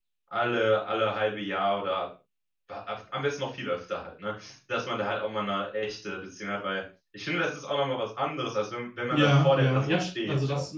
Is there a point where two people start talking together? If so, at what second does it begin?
9.1 s

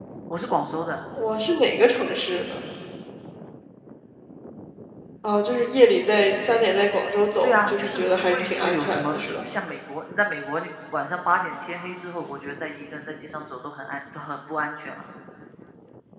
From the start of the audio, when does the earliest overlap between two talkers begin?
7.4 s

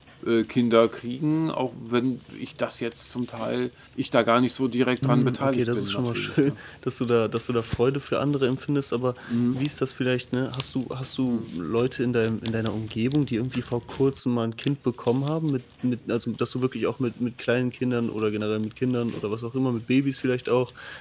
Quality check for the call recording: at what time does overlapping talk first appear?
5.0 s

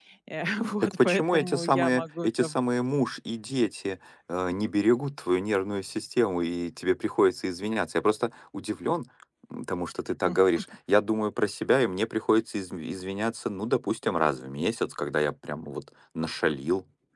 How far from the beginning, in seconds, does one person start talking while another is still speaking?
0.8 s

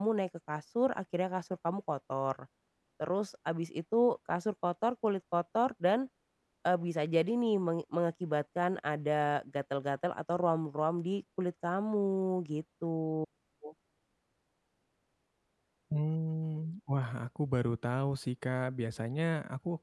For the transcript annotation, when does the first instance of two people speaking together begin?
none

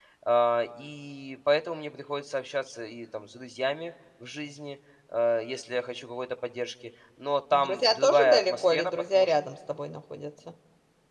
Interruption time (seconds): 7.5 s

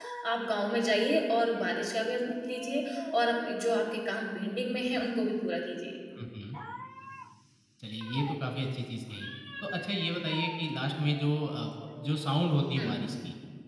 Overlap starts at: none

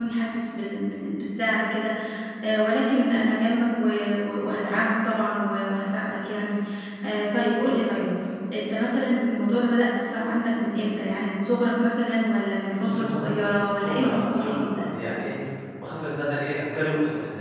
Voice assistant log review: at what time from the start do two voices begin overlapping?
12.8 s

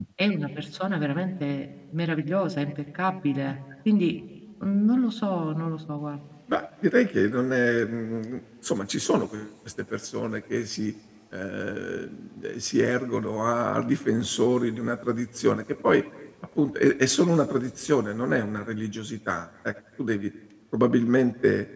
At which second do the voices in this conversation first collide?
none

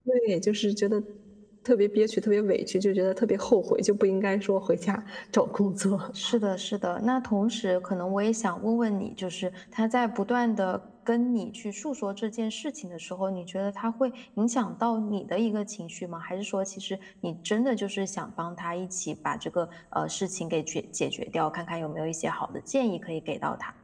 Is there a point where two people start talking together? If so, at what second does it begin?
none

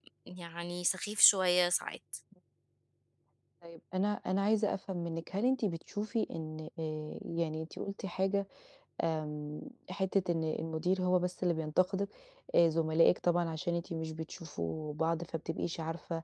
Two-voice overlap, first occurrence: none

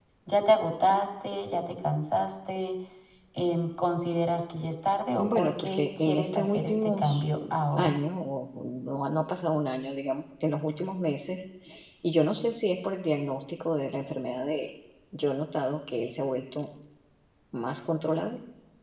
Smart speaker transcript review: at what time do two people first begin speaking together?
5.2 s

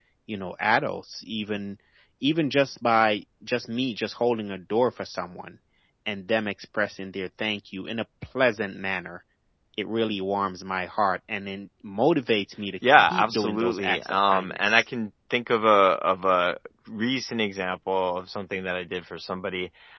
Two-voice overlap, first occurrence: 12.8 s

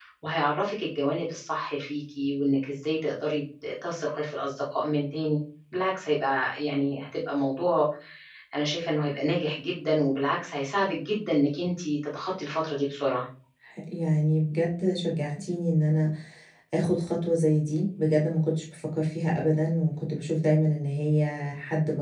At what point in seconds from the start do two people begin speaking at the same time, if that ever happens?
none

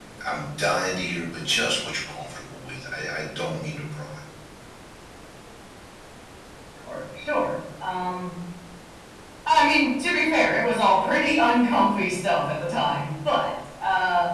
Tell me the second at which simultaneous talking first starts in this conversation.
none

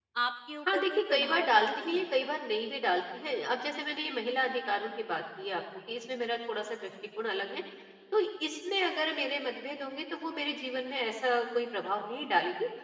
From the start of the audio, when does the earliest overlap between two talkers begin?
0.7 s

